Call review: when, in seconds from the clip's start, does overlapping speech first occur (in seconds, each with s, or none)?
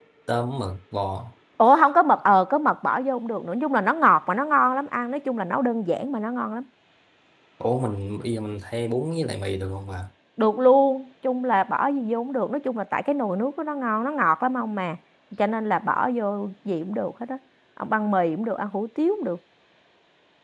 none